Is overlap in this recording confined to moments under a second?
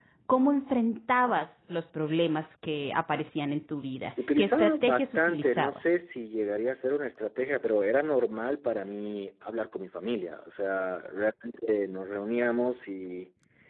No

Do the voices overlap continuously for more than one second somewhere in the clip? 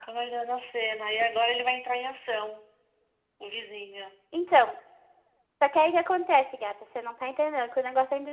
No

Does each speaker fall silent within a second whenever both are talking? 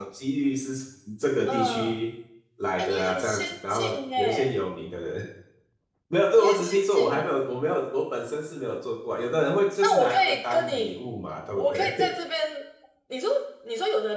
No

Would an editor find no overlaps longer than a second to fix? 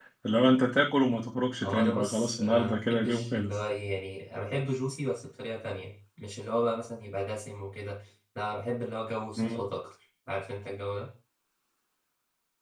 No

